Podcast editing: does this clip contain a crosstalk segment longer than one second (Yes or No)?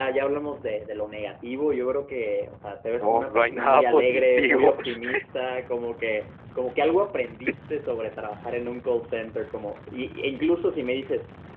Yes